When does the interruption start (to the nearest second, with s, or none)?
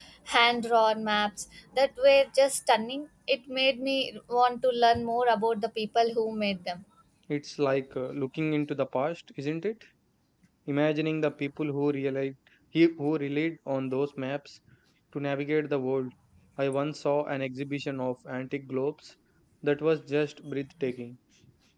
none